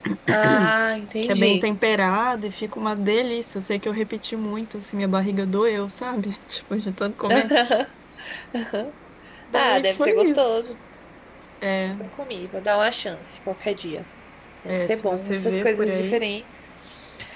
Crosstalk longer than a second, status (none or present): present